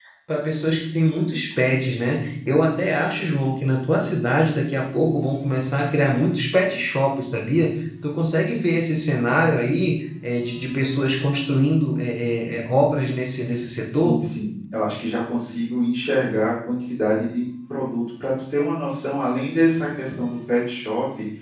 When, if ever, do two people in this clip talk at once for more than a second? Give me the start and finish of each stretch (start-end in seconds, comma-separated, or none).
none